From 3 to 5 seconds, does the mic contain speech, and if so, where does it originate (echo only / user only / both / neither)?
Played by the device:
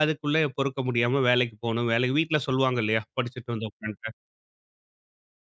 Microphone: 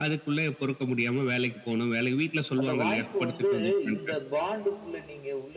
both